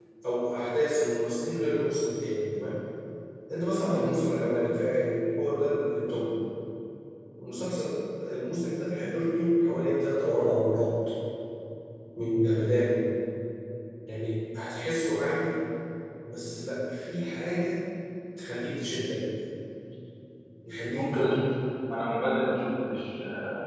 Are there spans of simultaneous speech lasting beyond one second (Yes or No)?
No